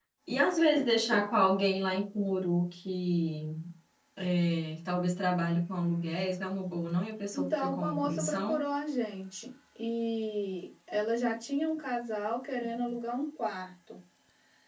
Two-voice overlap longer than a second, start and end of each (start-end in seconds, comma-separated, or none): 7.3-8.7